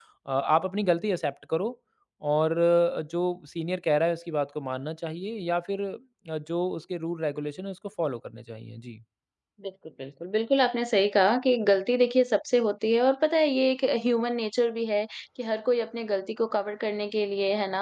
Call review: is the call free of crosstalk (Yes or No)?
Yes